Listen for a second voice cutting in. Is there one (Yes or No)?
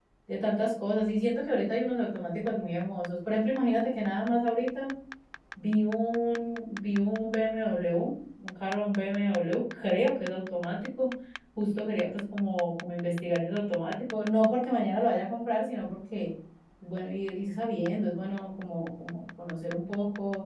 No